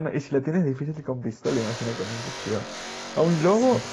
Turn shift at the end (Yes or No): No